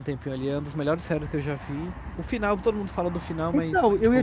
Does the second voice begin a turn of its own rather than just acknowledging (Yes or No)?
Yes